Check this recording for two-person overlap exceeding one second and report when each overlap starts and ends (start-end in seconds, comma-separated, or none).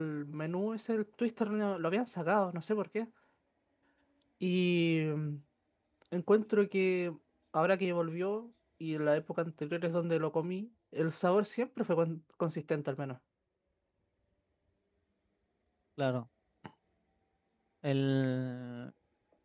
none